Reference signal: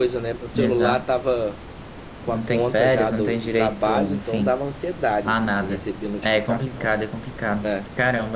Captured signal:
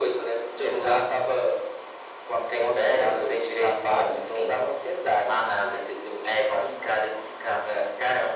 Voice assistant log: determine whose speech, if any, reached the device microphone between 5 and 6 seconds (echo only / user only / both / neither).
echo only